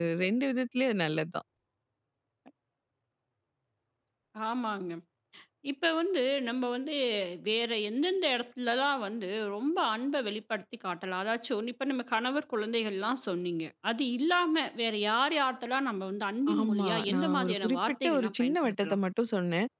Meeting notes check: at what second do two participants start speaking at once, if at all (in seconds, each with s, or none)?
16.5 s